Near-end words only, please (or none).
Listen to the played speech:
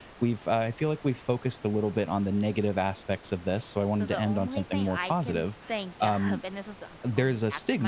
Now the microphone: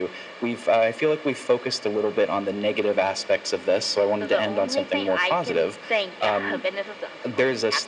none